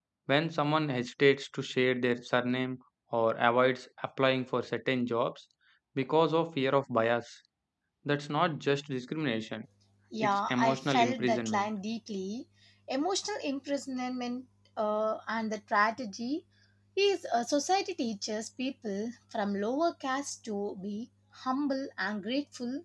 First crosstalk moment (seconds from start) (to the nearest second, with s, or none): 10 s